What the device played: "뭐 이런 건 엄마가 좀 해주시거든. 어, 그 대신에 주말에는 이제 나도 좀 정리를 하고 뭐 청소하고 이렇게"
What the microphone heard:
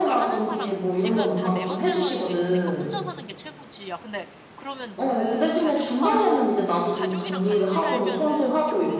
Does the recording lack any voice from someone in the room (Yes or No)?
No